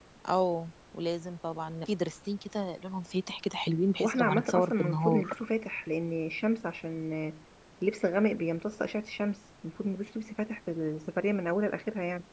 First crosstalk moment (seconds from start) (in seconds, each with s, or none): 4.0 s